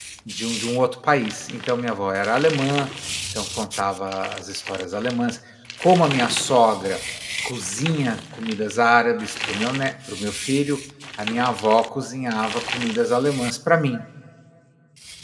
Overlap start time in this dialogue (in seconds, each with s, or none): none